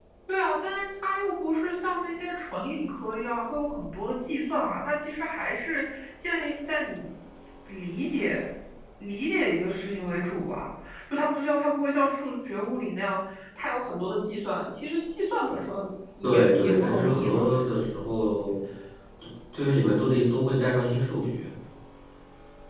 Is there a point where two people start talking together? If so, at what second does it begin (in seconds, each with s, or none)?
16.2 s